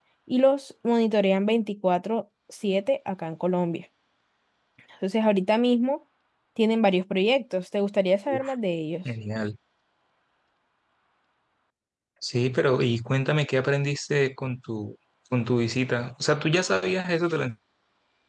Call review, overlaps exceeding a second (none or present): none